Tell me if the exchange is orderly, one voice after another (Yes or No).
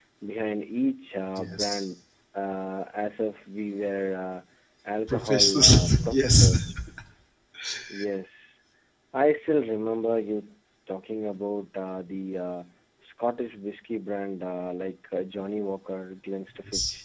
No